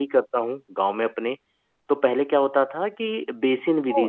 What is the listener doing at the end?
listening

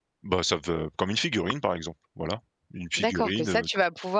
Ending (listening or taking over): taking over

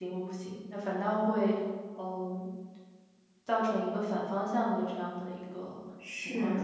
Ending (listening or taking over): taking over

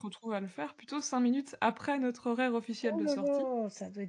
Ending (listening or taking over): taking over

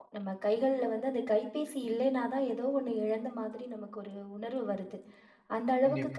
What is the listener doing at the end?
listening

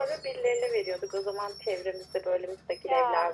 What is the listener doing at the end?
listening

